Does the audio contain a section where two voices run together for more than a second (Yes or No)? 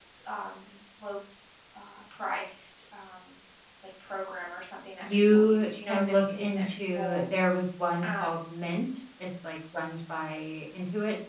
Yes